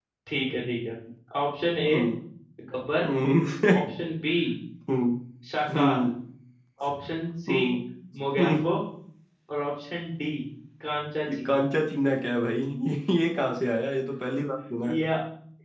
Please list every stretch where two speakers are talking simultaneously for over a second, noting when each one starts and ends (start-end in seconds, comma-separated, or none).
none